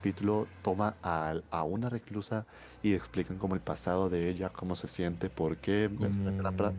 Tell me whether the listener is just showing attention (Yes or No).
Yes